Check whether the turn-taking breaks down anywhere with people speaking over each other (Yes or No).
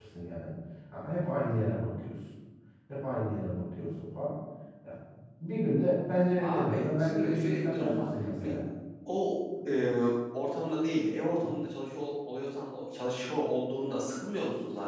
Yes